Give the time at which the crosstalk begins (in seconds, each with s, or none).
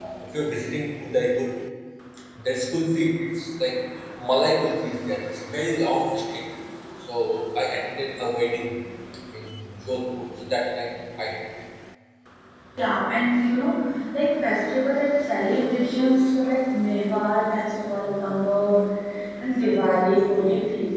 none